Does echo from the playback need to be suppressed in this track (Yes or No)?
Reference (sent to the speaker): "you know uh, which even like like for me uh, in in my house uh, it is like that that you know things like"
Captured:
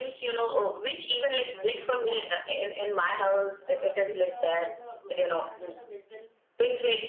Yes